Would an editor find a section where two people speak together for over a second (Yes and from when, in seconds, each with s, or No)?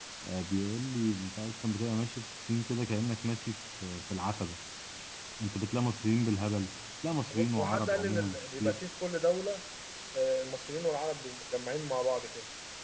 Yes, from 7.3 s